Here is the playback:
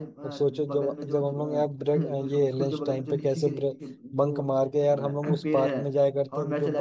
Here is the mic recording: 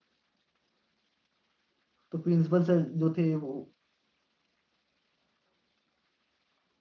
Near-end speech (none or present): present